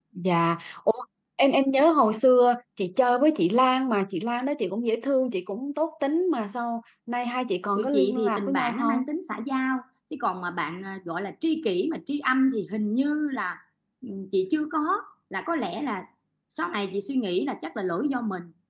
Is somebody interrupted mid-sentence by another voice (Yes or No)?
Yes